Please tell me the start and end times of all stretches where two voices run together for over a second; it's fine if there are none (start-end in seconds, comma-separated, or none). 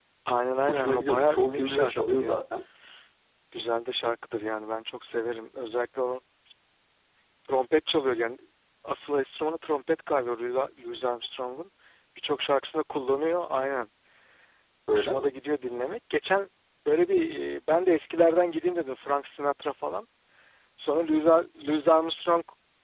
0.7-2.4